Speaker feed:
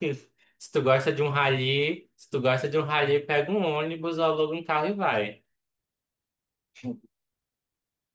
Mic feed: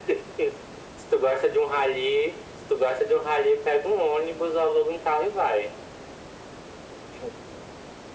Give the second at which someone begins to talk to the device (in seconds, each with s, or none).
none